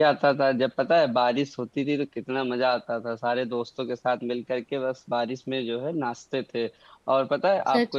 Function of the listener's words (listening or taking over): listening